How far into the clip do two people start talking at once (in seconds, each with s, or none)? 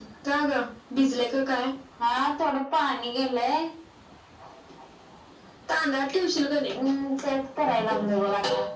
none